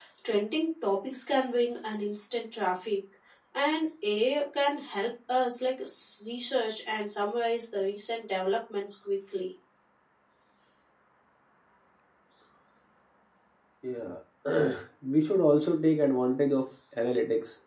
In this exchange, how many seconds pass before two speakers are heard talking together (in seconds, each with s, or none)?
none